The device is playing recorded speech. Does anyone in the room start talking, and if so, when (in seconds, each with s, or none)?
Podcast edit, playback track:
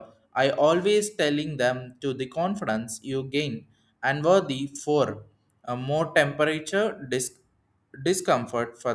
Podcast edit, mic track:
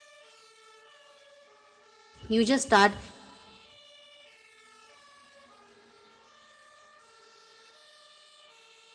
2.3 s